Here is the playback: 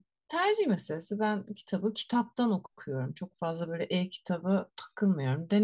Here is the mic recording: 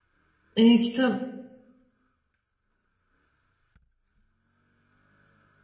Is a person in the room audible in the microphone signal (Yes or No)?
Yes